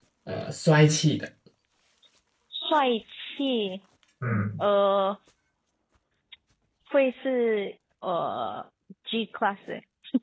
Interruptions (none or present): none